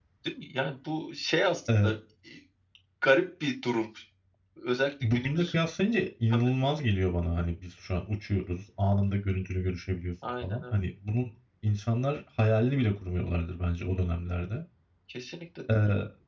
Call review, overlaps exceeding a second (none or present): none